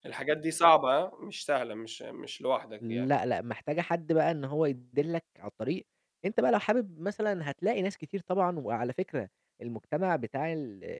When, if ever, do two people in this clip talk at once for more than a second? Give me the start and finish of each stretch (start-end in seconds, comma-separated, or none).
none